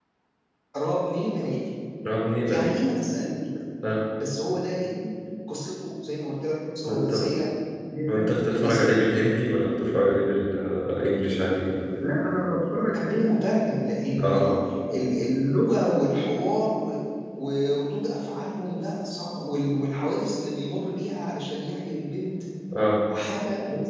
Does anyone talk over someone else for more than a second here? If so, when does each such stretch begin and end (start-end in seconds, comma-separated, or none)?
8.1-9.4